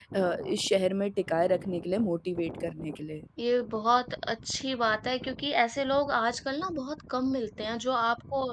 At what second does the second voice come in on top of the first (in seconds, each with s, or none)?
none